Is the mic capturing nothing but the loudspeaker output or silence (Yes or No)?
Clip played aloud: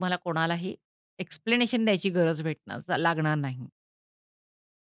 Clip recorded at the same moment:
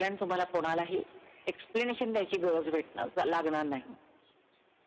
Yes